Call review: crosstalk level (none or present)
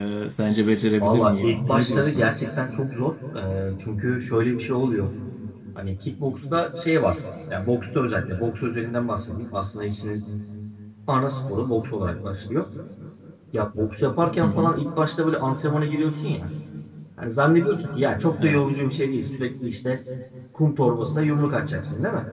present